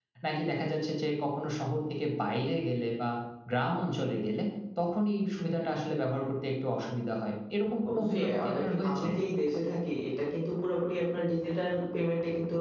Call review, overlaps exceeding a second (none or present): present